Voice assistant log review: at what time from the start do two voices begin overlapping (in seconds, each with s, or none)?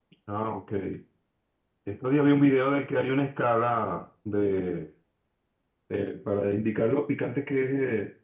none